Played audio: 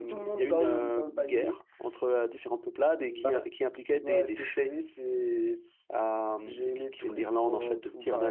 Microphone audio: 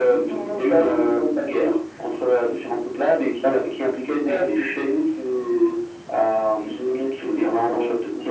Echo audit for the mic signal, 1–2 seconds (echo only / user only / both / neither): echo only